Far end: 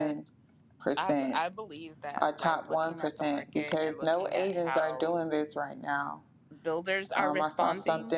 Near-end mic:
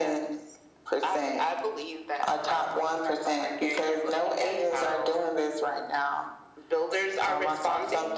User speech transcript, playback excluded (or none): none